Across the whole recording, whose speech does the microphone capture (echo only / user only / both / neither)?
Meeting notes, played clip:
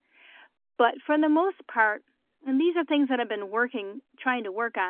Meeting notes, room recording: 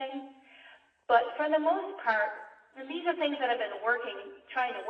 echo only